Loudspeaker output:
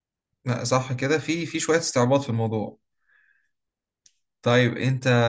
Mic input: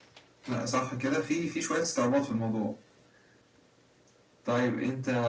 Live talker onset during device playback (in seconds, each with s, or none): none